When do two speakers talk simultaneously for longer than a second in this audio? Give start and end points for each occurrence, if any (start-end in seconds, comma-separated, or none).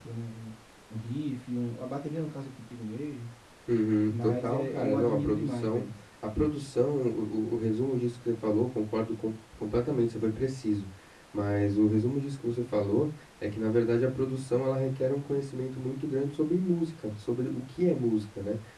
4.1-5.8